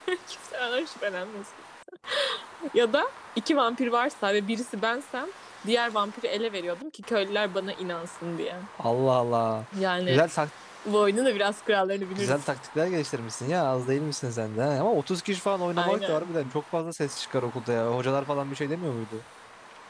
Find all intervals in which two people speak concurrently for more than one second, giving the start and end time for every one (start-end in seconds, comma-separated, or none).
none